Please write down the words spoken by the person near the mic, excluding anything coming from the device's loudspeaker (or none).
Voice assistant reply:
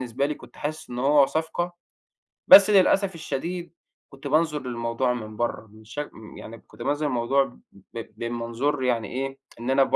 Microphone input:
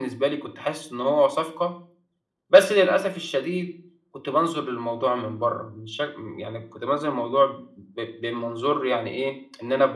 none